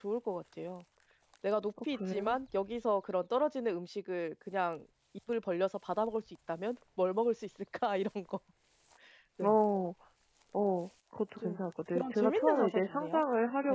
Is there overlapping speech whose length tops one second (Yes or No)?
Yes